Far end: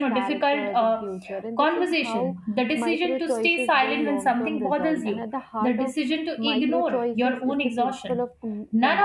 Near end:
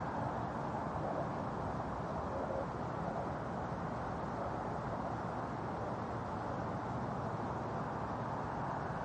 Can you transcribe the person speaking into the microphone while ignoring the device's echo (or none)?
none